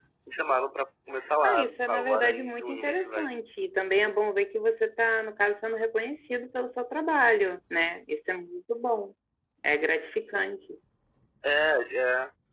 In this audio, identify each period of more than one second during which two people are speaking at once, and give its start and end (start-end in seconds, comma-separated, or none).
1.4-3.3